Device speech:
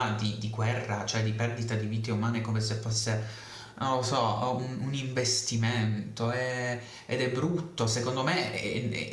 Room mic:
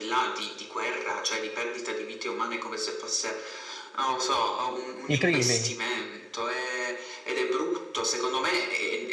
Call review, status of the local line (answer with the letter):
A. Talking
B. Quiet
A